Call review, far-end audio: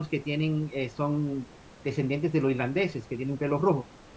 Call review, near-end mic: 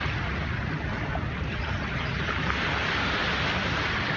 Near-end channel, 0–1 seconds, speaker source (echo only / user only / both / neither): neither